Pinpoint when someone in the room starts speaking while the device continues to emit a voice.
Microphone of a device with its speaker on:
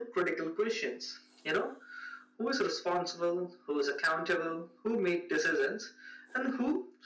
none

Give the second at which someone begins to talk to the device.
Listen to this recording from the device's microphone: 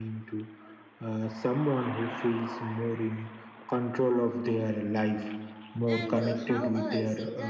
5.8 s

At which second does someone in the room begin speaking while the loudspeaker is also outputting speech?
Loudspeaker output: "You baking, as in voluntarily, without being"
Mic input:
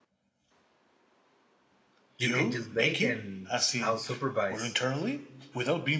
2.2 s

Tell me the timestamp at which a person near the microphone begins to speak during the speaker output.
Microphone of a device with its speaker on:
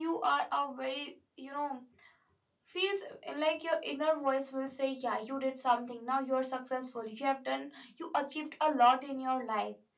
none

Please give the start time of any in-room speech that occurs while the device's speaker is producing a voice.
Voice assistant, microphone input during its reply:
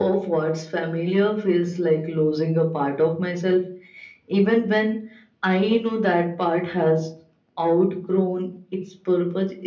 none

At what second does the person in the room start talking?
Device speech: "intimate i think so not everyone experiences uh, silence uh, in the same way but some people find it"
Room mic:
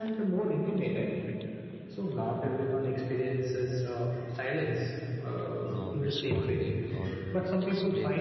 5.6 s

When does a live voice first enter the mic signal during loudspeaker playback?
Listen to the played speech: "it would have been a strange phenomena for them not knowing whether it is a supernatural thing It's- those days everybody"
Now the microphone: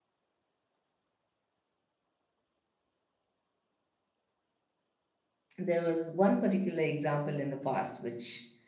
5.6 s

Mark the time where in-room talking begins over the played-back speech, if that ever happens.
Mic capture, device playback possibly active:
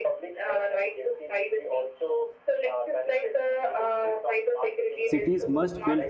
5.0 s

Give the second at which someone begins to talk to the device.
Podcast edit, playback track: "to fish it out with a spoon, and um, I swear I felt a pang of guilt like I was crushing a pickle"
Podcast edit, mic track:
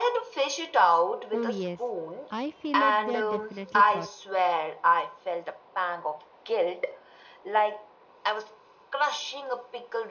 1.3 s

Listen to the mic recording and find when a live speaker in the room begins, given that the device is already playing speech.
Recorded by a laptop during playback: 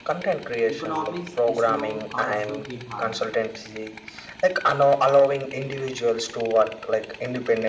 0.7 s

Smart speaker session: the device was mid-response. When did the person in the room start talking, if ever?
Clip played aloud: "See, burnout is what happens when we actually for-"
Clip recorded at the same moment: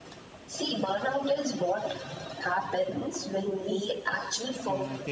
4.1 s

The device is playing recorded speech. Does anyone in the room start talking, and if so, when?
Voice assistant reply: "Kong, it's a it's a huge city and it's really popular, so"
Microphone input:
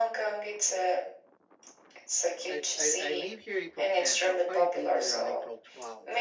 2.5 s

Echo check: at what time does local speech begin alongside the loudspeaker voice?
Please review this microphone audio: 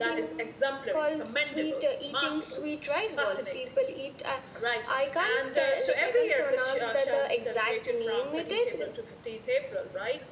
none

